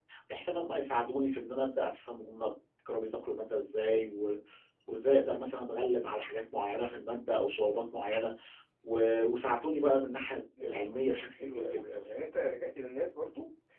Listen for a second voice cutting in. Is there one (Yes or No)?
Yes